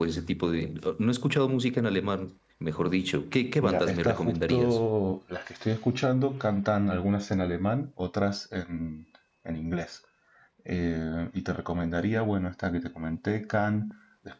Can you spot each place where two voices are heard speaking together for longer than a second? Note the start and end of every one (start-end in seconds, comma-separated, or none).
3.6-4.8